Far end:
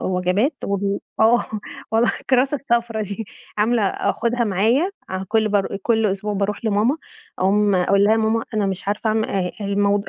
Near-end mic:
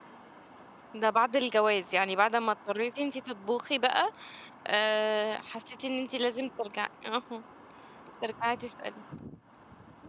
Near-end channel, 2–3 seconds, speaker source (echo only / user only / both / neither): user only